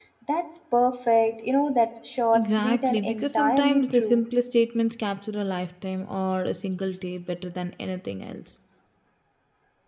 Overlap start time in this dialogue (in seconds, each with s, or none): 2.3 s